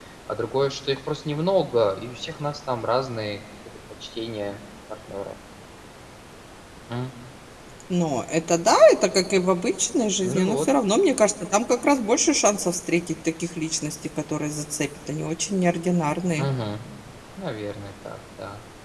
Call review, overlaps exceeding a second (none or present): none